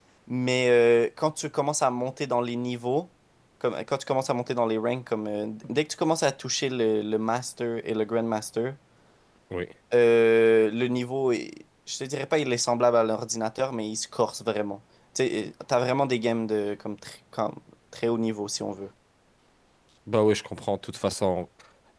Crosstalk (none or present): none